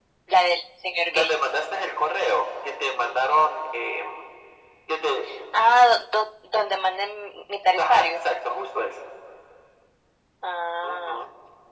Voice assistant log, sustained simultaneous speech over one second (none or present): none